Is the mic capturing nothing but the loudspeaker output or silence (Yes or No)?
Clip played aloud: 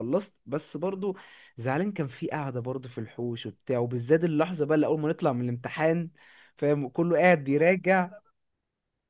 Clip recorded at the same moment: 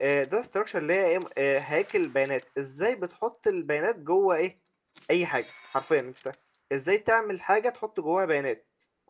No